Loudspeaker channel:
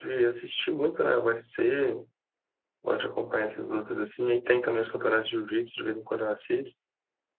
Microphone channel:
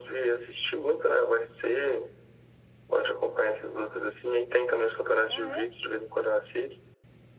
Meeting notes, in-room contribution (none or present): present